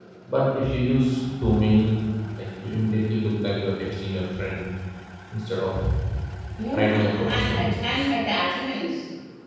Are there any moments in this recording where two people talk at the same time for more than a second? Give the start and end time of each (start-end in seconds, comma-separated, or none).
6.7-8.1